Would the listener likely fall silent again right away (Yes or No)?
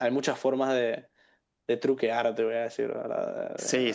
No